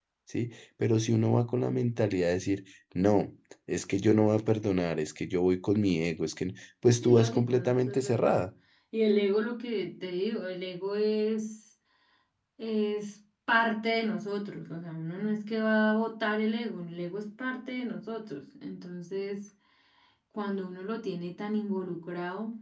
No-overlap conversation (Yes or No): No